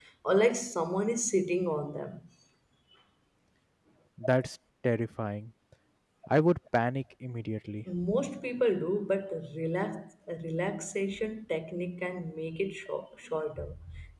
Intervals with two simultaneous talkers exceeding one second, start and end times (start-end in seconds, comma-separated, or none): none